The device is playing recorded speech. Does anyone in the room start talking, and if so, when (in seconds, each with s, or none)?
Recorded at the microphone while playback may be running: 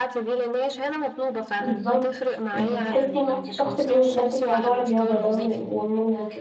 1.6 s